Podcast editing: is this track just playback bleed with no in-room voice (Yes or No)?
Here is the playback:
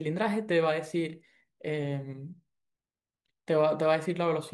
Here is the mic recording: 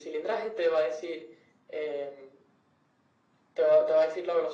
Yes